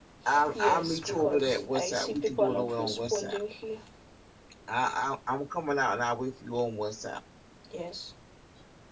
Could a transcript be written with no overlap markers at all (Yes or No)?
No